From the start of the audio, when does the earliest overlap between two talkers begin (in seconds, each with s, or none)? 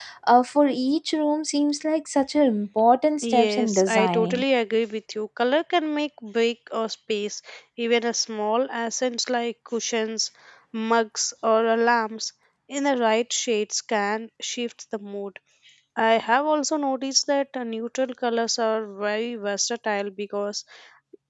3.2 s